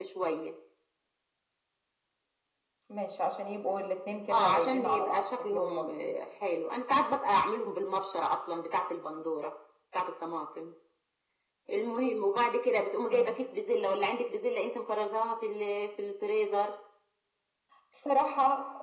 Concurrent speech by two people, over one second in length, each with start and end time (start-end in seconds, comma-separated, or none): 4.3-6.1